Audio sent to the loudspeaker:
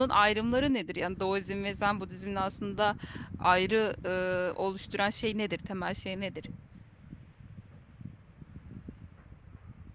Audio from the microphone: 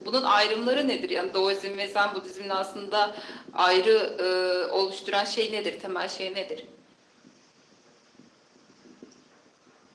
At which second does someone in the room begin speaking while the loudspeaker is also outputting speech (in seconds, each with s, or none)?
none